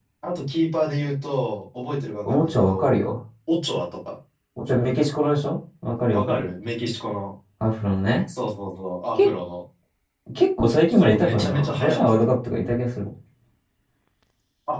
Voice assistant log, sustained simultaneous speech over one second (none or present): present